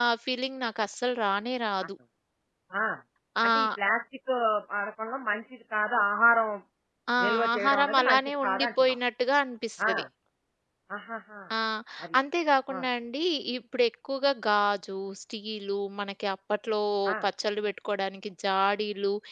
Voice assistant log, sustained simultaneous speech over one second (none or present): present